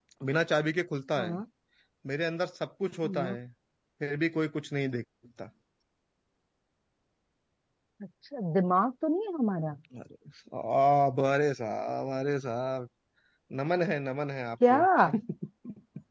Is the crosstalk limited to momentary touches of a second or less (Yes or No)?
Yes